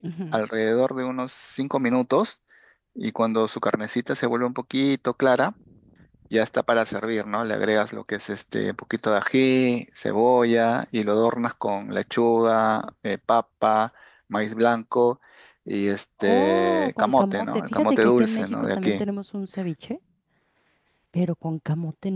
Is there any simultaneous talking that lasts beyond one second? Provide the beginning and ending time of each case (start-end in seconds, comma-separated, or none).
16.2-19.0